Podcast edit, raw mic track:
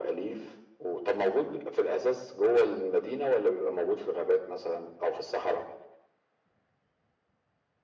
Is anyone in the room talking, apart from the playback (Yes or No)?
No